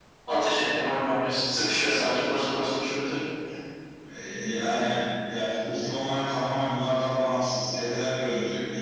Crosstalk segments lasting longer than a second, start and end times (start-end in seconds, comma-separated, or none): none